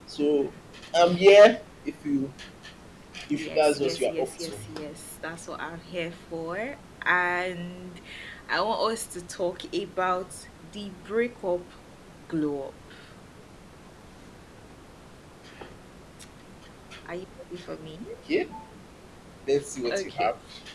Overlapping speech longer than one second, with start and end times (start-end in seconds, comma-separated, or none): 3.4-4.6